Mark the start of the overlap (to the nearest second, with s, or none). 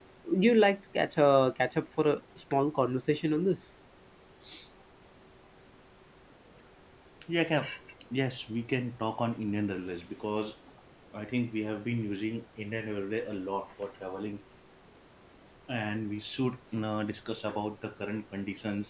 none